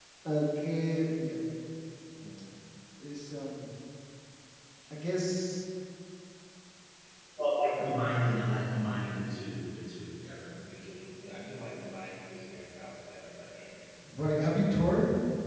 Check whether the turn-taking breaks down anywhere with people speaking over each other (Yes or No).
No